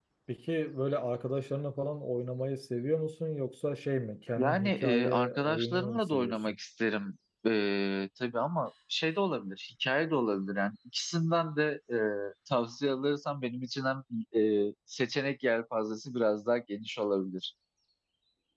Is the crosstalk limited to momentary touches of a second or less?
No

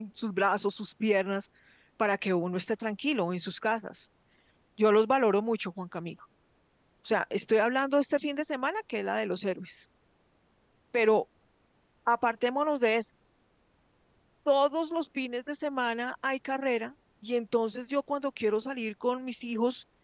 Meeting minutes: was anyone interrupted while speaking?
No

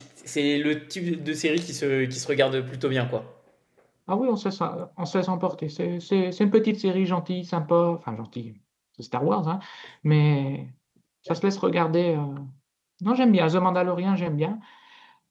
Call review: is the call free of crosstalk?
Yes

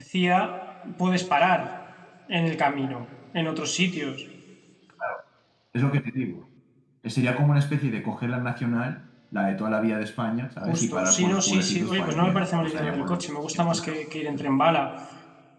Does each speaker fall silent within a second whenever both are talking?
No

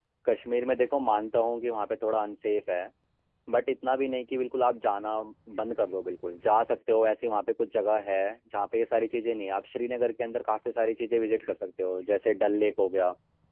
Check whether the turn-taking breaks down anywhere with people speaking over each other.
No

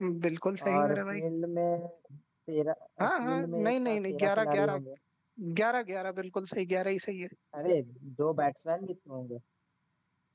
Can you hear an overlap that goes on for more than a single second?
Yes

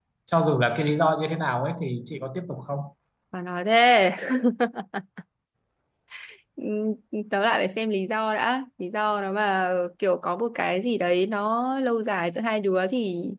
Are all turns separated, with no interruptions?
Yes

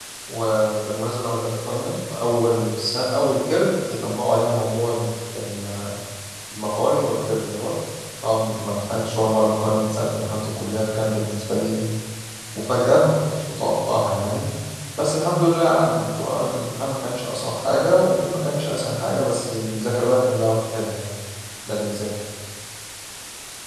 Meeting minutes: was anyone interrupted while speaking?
No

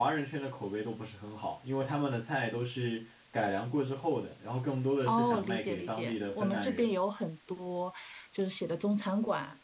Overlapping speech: Yes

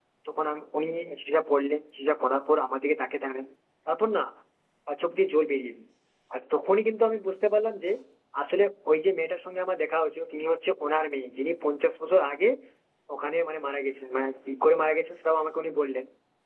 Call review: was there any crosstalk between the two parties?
No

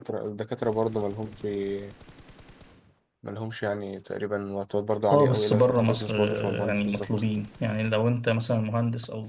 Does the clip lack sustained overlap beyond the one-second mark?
No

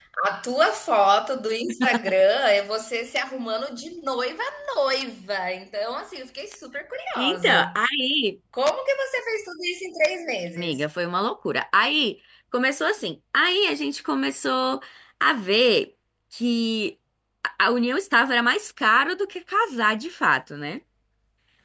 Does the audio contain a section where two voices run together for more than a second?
No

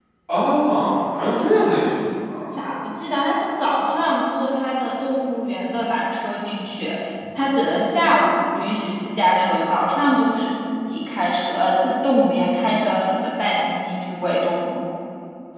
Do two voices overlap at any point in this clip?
No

